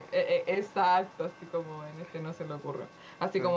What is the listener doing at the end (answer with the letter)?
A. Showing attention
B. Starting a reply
A